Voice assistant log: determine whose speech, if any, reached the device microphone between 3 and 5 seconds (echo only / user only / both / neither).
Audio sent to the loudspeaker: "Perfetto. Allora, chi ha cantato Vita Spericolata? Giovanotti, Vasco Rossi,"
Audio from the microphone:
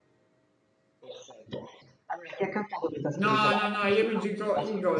both